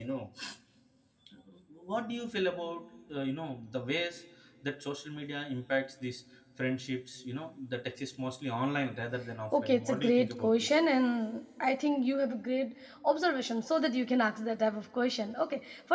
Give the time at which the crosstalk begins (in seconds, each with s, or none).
9.5 s